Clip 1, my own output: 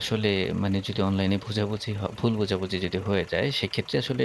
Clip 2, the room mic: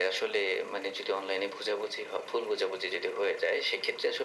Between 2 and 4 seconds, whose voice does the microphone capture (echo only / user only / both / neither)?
echo only